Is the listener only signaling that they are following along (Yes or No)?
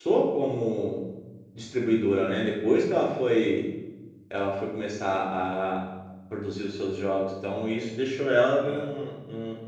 Yes